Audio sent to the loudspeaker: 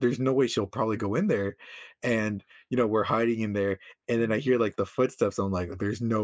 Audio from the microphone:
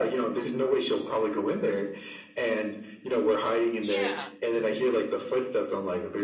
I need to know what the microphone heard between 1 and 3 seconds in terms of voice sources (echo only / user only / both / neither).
echo only